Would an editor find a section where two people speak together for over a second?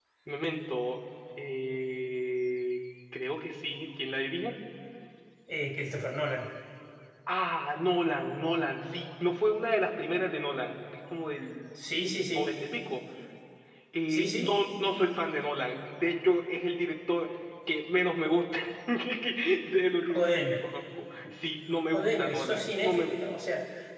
Yes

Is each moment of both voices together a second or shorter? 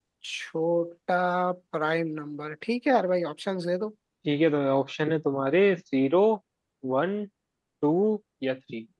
Yes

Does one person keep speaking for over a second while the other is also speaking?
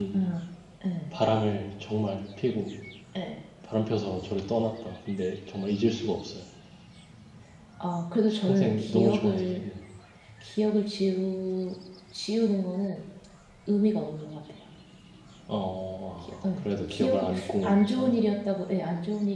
Yes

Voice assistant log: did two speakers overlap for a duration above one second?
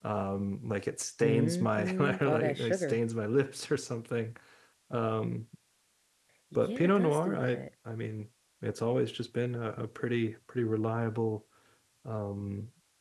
Yes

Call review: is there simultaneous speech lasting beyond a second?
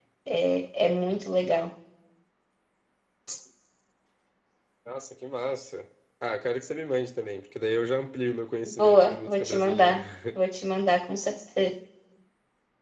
Yes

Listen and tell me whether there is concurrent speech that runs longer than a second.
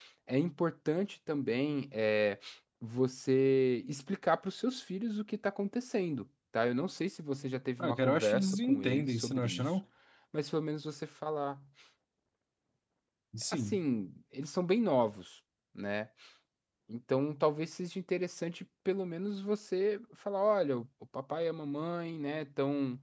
Yes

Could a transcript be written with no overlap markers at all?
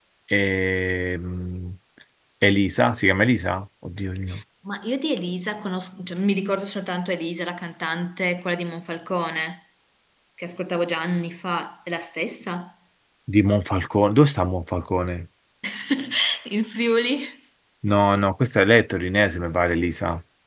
Yes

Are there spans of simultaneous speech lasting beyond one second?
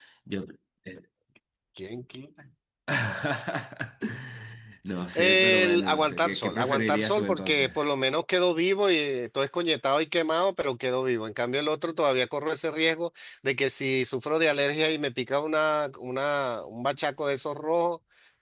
Yes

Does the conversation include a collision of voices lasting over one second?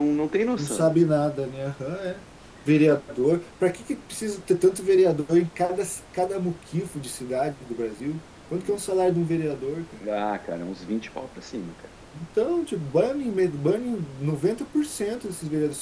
No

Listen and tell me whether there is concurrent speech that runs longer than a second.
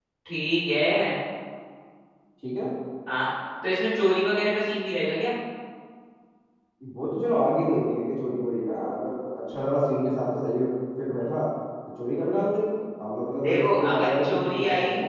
Yes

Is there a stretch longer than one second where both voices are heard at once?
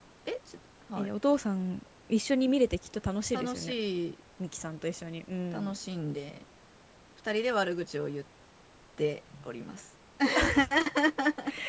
No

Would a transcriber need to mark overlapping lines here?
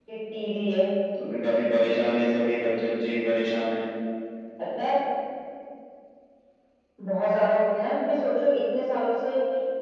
No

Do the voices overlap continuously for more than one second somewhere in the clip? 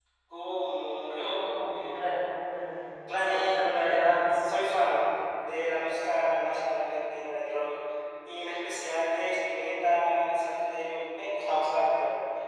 Yes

